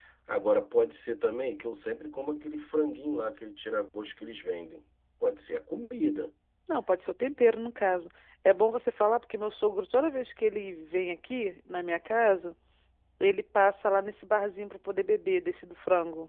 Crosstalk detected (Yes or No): No